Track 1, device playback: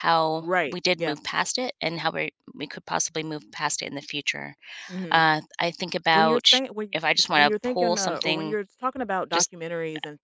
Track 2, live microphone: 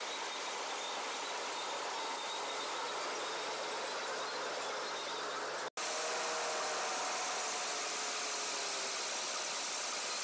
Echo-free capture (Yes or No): Yes